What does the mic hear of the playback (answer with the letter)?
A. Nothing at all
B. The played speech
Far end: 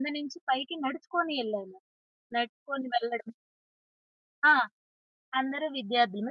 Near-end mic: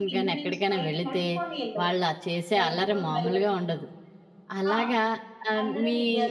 B